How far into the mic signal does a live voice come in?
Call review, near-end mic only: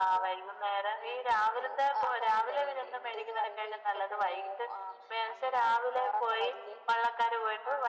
none

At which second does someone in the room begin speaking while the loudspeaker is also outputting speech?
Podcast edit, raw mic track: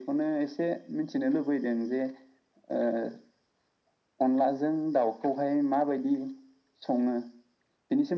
none

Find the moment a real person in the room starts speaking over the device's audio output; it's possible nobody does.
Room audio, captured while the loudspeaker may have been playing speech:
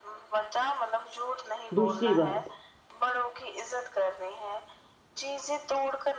1.8 s

